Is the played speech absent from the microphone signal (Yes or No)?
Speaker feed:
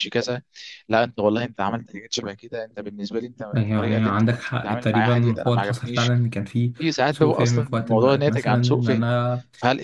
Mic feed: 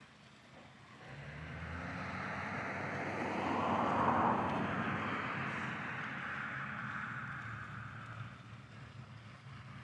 Yes